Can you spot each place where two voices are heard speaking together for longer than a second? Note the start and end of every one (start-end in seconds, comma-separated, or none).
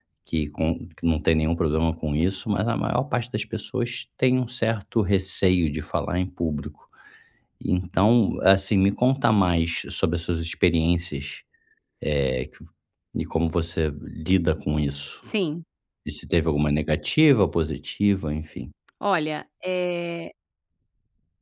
none